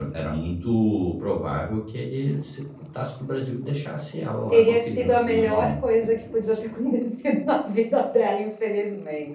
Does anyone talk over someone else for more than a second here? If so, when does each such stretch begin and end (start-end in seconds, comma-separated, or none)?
4.5-6.7